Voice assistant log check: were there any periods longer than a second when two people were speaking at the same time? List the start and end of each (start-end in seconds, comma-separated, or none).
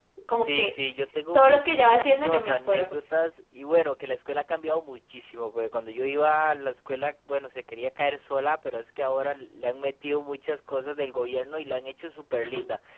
1.3-3.0